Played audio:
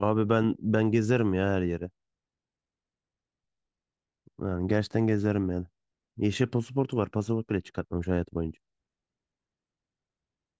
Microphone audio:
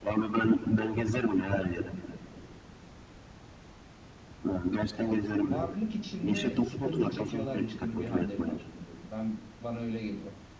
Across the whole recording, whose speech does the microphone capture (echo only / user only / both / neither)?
both